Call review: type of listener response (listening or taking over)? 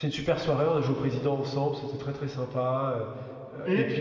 listening